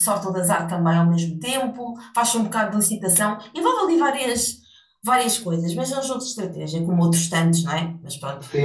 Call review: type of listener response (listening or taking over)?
taking over